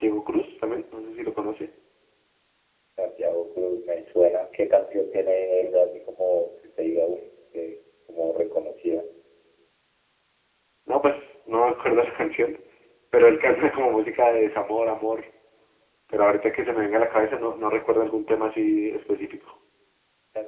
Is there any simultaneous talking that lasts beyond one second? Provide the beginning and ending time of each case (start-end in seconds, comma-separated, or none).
none